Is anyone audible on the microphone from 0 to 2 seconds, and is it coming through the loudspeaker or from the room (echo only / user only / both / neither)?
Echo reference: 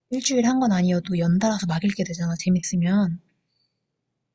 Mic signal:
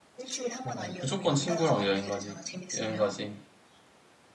both